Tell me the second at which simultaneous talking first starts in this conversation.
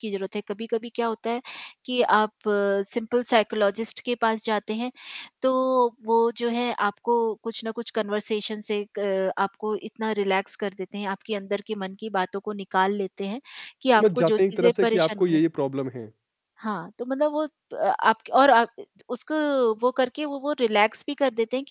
14.0 s

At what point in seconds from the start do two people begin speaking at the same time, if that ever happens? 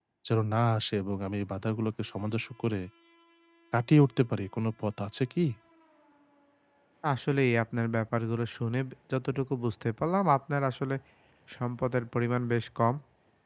none

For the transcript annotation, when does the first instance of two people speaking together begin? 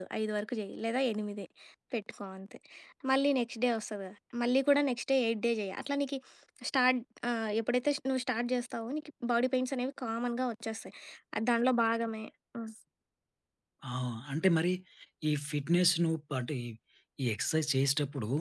none

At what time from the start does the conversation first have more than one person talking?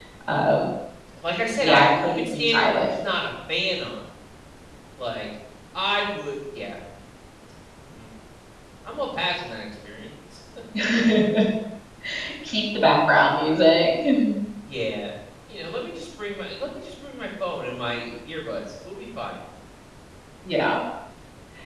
1.6 s

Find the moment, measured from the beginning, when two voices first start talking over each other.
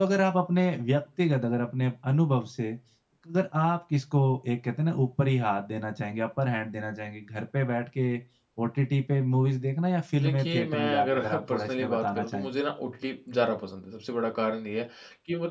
10.1 s

